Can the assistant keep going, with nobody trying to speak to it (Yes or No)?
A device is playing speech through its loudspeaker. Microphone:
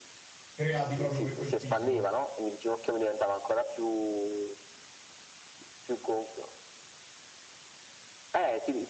No